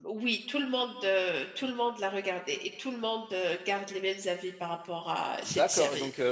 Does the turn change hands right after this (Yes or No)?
Yes